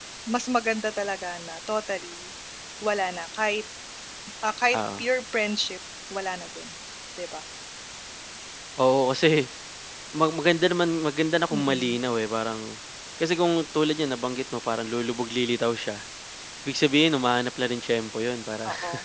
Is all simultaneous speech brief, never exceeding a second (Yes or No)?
Yes